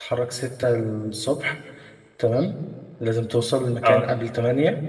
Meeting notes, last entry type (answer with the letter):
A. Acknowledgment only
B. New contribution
A